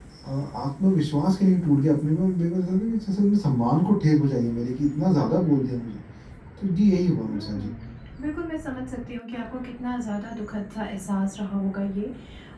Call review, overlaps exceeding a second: none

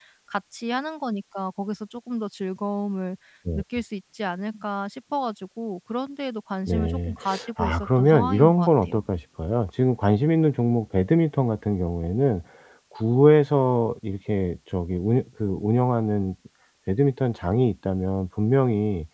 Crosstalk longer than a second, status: present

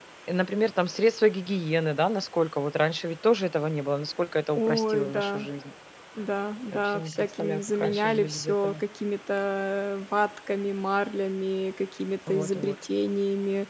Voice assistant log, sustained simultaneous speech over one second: present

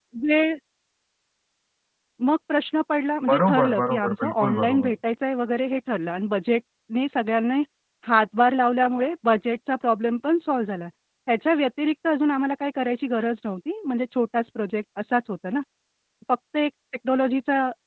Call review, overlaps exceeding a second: present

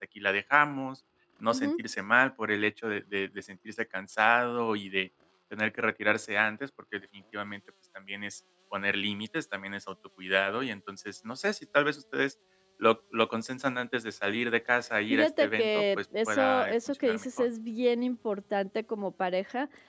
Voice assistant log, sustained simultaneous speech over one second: present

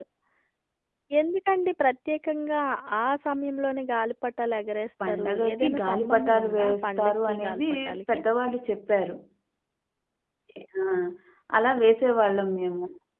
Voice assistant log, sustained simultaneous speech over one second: present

